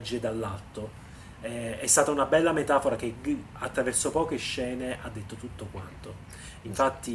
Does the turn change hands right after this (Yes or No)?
No